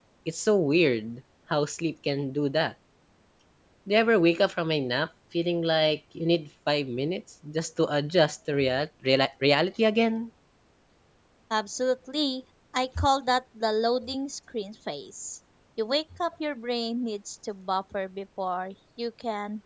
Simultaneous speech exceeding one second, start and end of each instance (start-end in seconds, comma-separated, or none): none